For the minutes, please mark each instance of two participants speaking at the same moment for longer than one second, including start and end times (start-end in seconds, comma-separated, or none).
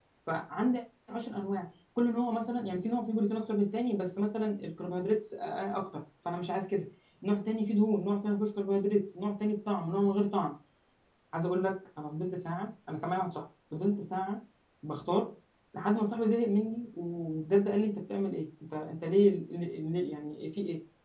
none